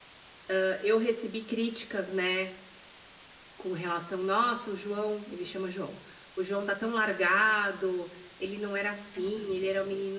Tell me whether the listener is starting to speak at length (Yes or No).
No